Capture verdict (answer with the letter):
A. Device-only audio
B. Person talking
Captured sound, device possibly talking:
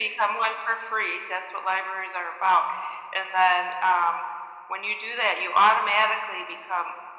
A